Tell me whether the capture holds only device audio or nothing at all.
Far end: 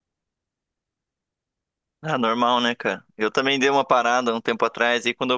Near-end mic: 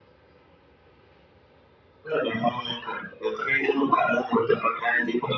Yes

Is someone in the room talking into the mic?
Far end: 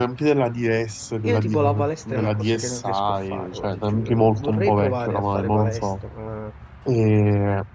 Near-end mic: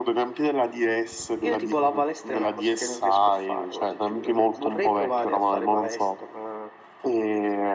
No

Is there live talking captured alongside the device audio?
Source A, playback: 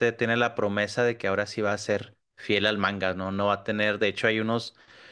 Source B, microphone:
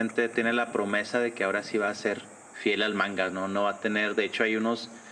No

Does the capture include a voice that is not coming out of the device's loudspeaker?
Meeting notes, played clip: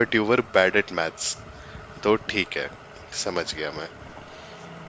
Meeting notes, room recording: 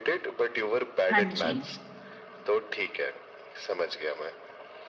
Yes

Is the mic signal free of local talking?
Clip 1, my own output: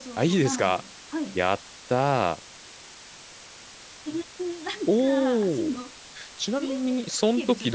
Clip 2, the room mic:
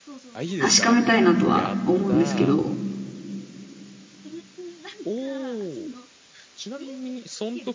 No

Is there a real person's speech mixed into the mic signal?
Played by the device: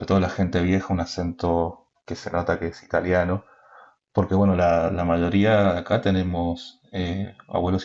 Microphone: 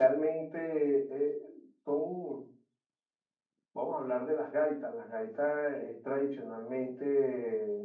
Yes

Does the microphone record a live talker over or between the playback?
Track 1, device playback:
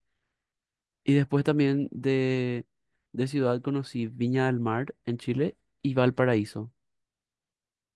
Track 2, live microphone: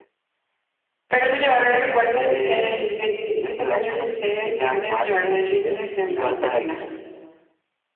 Yes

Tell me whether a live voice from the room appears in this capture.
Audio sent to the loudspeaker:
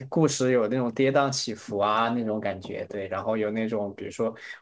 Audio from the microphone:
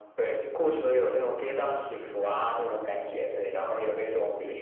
No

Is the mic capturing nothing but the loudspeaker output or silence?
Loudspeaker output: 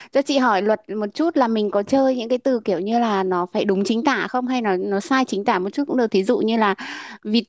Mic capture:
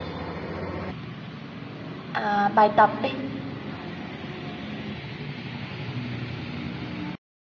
No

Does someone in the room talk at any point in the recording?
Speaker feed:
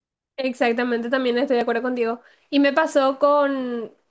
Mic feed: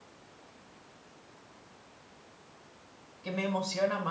Yes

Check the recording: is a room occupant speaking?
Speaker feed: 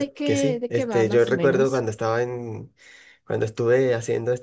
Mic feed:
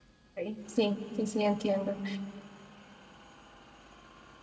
Yes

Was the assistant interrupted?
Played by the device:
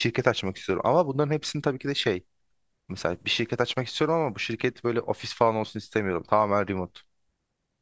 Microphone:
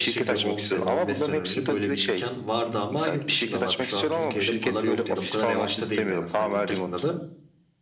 Yes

